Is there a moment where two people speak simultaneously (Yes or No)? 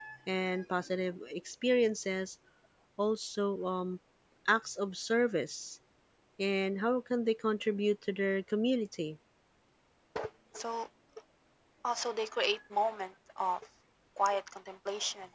No